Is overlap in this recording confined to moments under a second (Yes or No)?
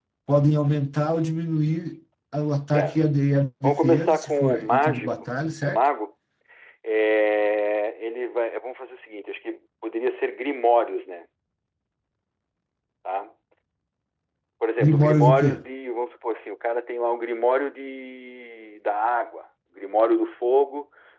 No